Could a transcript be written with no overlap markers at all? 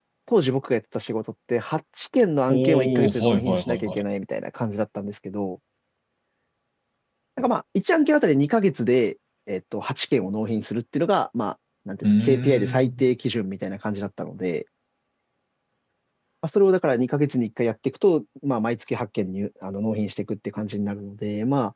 No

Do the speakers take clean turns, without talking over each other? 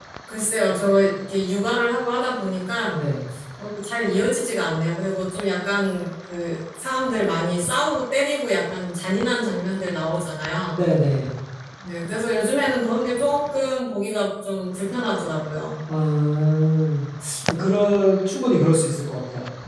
Yes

